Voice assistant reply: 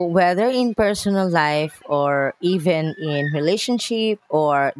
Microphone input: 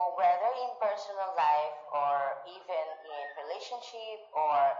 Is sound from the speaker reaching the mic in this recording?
Yes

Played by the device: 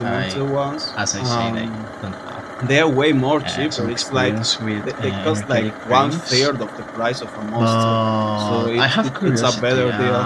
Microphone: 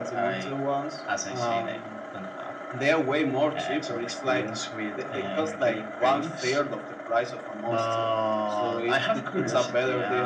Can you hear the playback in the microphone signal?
Yes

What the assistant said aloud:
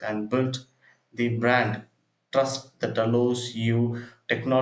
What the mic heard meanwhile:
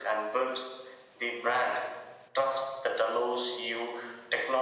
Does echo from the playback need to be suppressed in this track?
Yes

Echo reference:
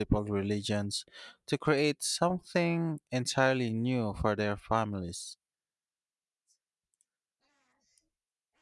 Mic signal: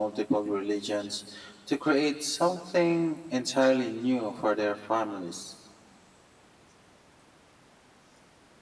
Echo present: Yes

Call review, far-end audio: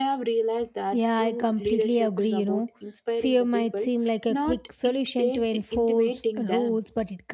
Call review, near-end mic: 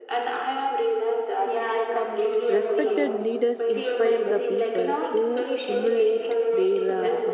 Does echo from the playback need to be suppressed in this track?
Yes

